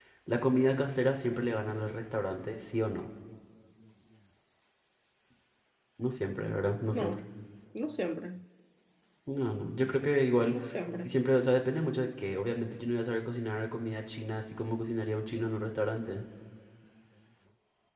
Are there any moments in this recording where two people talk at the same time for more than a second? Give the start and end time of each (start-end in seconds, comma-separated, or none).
none